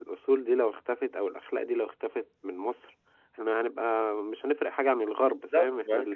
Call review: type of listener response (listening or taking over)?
taking over